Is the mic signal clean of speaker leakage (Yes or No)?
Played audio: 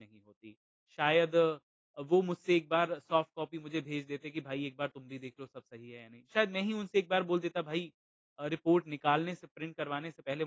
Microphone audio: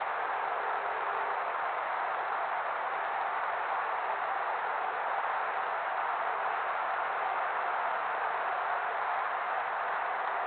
Yes